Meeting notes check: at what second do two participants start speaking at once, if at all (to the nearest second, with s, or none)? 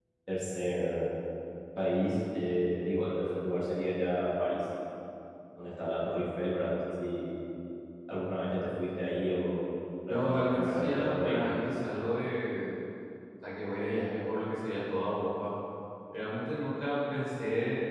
10 s